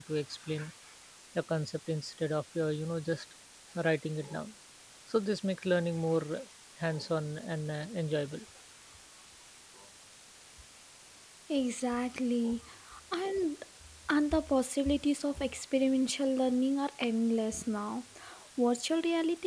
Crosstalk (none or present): none